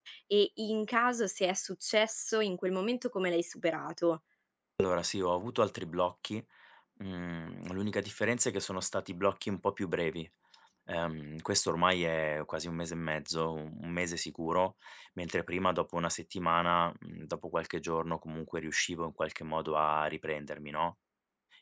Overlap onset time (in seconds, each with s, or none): none